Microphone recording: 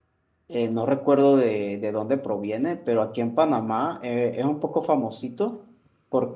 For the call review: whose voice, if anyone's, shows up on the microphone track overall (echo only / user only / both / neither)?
user only